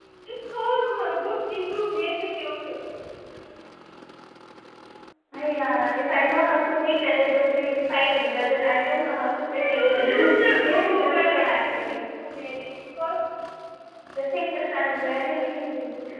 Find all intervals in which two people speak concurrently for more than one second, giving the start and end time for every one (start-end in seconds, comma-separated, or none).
9.5-12.0